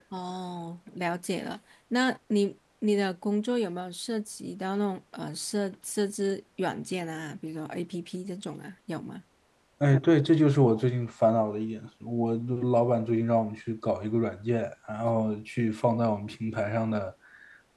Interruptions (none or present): none